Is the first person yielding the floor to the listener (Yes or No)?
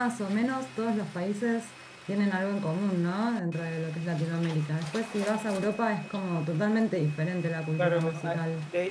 Yes